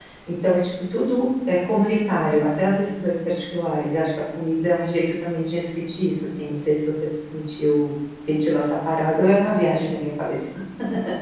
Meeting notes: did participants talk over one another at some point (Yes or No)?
No